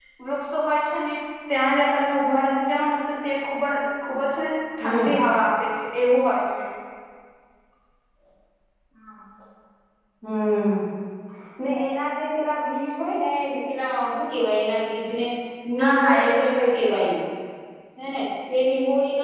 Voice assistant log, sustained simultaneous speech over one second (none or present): present